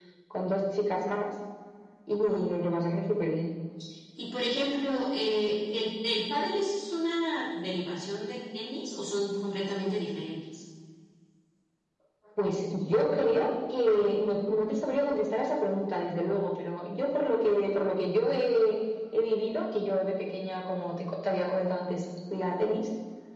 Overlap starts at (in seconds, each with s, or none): none